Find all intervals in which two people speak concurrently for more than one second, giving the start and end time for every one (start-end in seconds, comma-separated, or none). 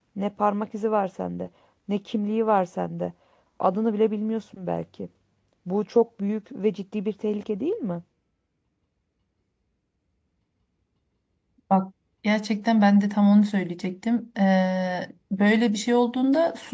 none